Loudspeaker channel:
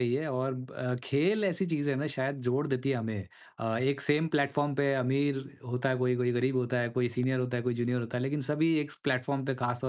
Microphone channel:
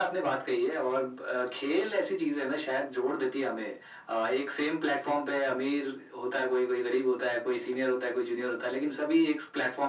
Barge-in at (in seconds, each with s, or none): none